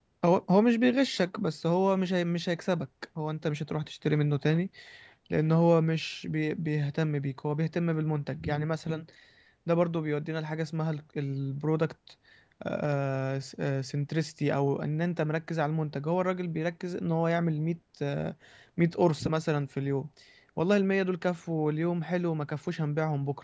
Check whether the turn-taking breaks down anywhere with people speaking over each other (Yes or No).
No